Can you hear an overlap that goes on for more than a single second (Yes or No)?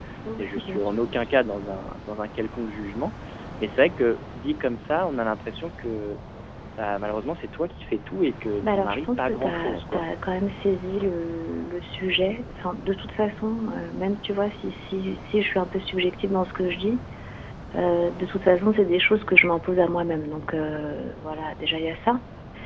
Yes